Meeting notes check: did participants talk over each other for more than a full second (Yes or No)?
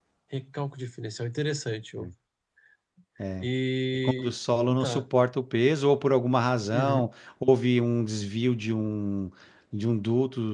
No